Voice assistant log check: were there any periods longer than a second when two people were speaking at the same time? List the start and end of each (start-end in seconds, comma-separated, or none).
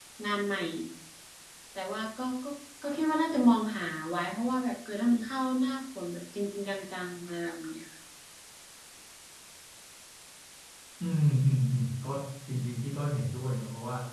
none